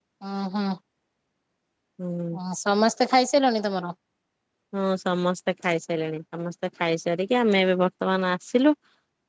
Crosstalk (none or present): none